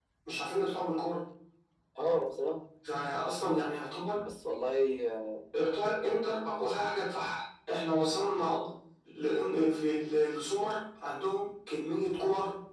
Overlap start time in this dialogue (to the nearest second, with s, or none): none